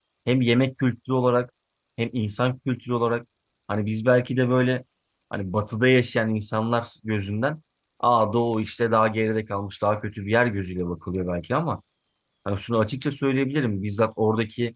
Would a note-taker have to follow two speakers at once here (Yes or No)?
No